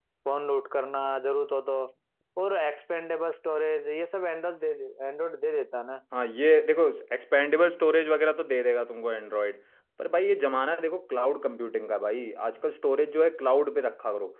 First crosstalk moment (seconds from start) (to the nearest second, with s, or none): none